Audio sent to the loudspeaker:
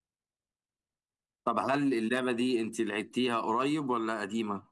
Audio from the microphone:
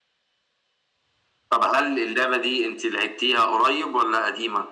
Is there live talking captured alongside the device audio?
No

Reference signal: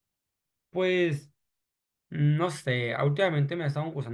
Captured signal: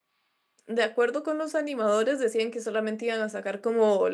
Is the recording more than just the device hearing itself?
Yes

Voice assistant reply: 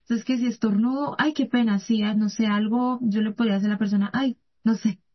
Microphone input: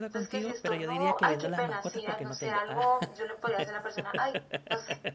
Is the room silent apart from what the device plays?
No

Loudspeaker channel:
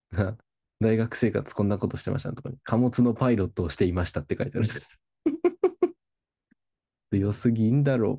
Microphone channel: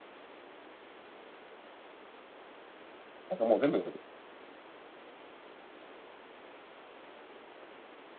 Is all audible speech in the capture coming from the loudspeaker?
No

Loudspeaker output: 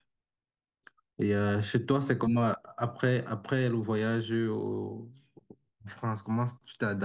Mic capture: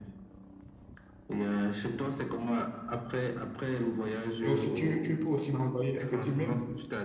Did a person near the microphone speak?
Yes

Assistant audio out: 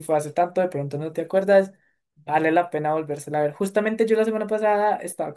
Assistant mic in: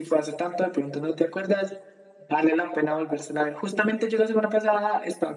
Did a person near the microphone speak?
No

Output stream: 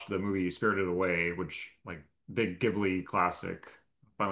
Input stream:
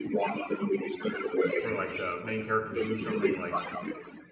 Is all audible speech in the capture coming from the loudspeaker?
No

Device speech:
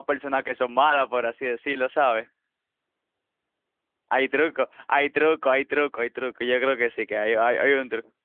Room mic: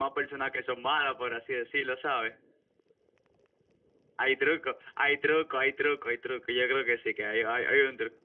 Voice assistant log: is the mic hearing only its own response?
Yes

